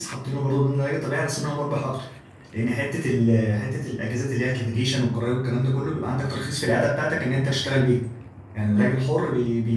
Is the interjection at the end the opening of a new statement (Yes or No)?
No